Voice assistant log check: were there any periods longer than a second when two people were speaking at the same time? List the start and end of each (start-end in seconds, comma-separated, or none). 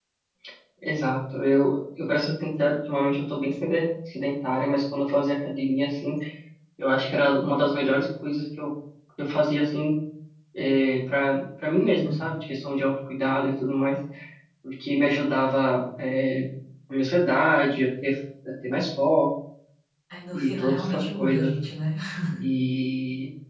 20.3-21.5